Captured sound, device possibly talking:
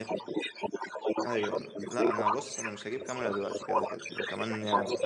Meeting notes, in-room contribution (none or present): present